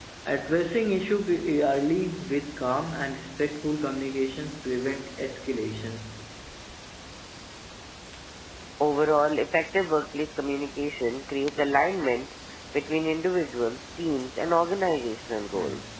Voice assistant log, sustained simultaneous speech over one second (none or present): none